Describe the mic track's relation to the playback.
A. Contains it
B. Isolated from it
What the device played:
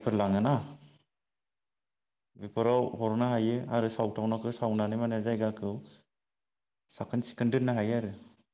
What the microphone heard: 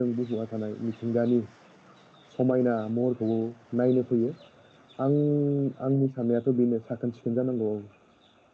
B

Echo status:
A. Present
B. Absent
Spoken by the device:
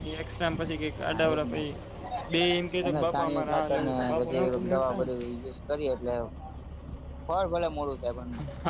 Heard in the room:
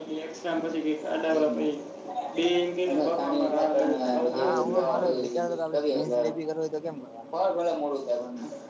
A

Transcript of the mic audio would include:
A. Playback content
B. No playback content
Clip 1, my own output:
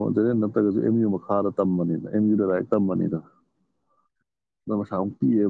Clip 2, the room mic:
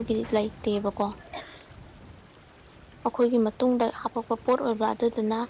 B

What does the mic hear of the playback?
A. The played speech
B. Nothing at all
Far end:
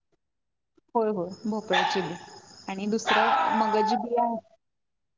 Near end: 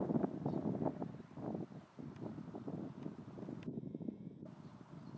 B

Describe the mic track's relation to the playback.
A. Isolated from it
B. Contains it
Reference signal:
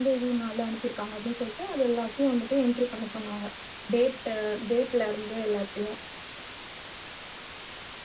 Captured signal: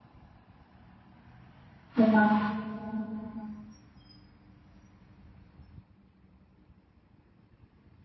A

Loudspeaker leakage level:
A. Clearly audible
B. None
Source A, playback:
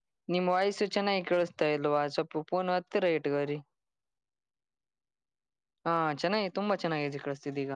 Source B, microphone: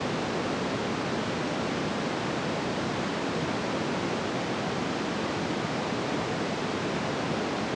B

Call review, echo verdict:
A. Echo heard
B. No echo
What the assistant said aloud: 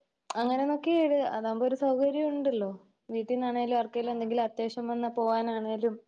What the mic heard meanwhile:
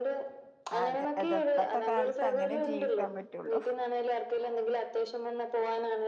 A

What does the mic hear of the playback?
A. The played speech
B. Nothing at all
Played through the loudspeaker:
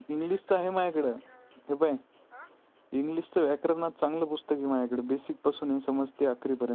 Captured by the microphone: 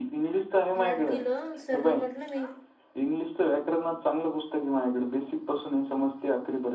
A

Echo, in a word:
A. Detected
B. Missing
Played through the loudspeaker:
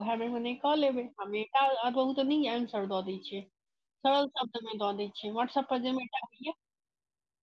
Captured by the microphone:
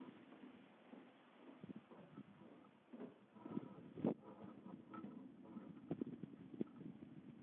B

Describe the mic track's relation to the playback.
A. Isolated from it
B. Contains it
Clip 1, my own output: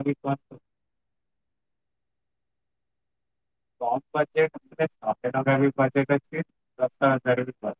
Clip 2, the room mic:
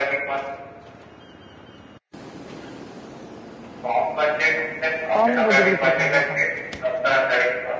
B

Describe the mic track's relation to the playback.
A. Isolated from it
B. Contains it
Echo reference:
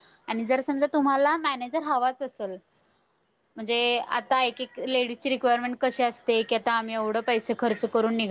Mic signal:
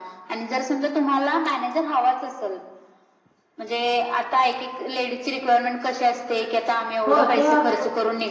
B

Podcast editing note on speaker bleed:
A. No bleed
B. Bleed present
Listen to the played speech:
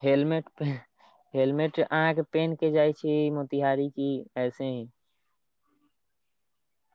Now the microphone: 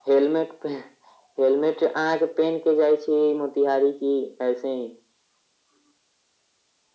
B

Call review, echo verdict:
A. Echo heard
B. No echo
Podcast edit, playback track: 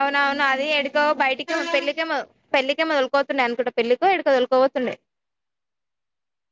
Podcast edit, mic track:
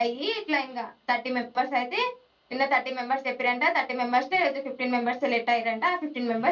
B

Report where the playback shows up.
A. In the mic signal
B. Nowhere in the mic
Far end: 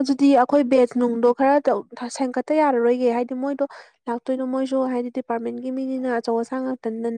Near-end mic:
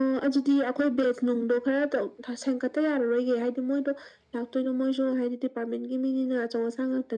A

